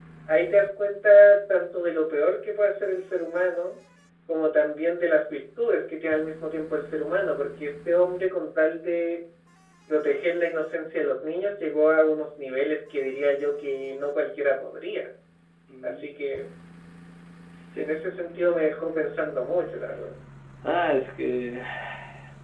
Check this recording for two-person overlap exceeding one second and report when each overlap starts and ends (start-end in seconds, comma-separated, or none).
none